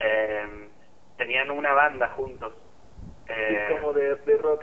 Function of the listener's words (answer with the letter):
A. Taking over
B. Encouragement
A